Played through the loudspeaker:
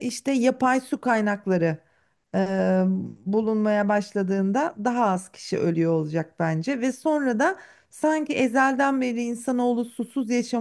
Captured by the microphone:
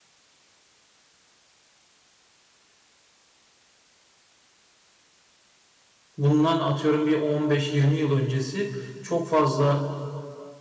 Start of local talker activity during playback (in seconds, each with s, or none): 6.2 s